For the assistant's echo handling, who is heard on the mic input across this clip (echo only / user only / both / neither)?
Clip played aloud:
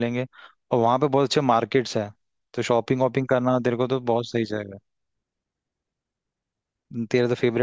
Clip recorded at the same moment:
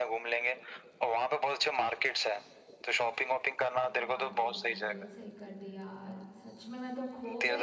both